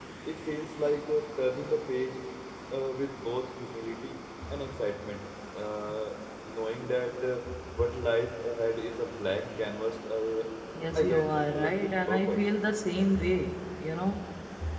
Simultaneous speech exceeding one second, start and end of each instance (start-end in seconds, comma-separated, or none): 11.0-12.4